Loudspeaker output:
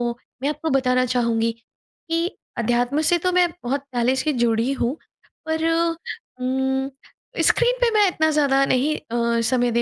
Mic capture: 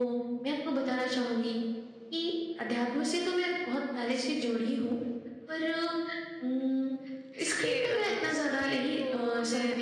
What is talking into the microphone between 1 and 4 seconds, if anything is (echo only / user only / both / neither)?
echo only